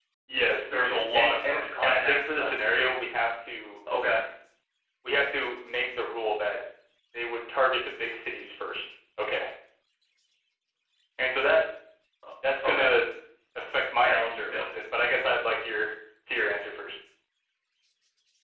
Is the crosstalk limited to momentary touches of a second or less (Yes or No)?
No